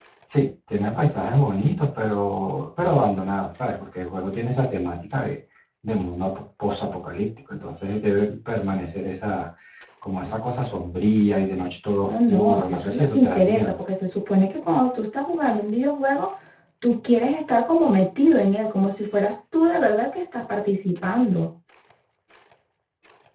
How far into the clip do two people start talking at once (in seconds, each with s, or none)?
12.0 s